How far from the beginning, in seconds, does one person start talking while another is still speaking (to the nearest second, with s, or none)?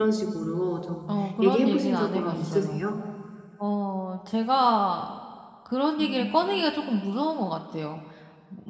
1 s